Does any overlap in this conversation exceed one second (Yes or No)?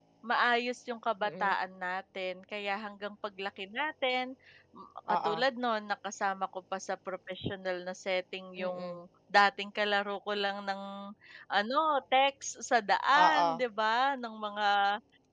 No